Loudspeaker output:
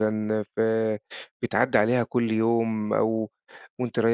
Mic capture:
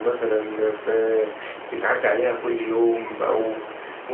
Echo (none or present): present